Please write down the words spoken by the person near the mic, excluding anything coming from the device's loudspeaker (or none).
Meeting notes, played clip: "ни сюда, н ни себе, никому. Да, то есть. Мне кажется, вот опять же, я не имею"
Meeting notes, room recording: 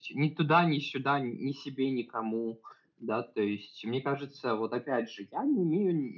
none